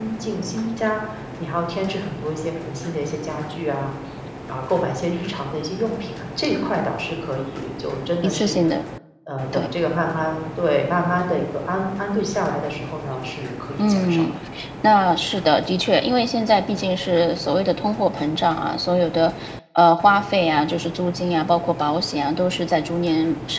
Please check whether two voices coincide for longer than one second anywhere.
No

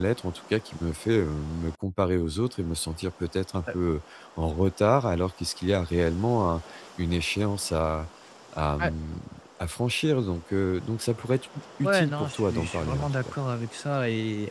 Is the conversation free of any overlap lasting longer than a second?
No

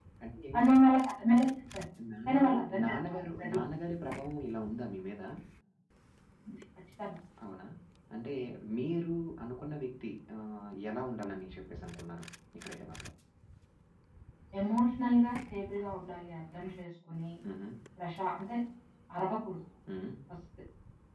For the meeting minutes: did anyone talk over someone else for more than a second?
Yes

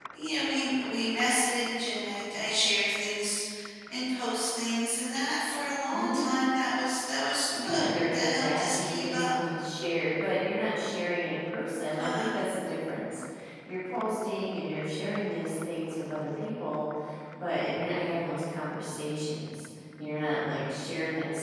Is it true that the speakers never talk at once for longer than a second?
No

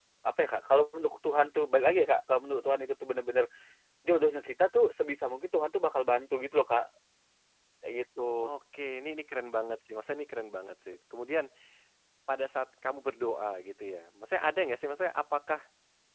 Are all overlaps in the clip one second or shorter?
Yes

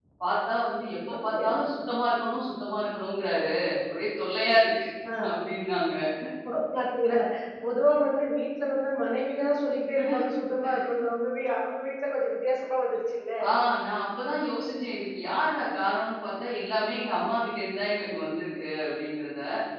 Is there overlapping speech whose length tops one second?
No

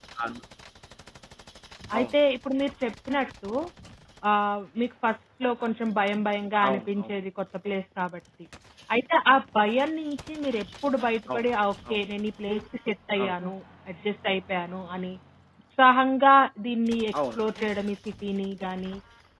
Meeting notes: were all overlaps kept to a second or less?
Yes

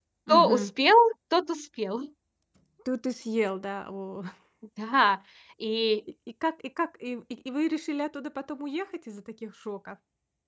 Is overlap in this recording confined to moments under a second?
Yes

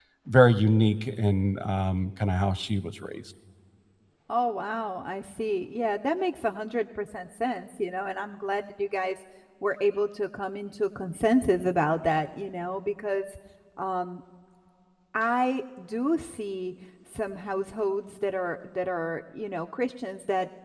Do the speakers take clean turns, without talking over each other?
Yes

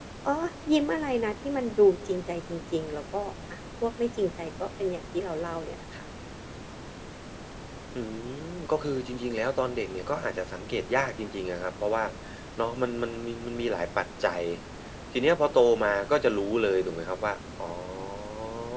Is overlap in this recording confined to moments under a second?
Yes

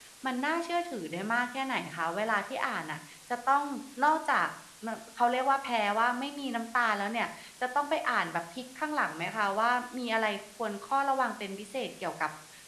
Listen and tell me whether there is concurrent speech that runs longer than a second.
No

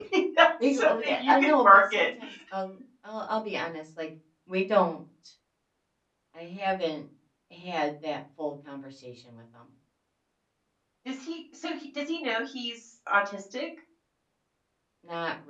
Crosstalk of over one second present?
Yes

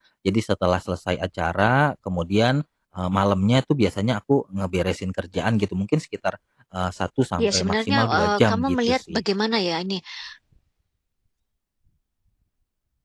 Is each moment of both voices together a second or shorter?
No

